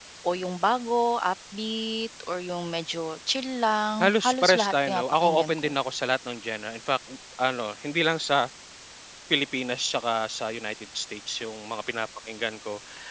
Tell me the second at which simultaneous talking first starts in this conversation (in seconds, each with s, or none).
4.0 s